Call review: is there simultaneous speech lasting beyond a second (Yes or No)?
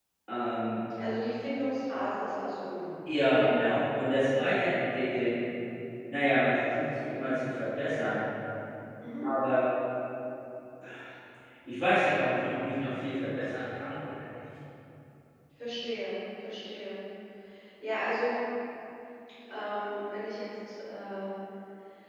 No